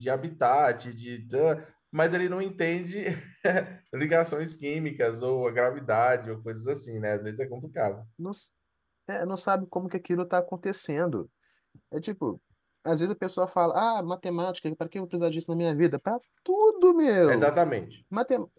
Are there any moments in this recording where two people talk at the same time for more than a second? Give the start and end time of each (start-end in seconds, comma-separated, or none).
none